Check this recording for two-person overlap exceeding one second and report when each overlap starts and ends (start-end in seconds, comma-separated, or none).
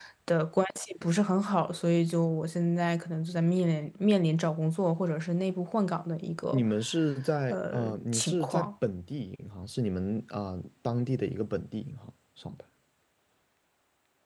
7.5-8.7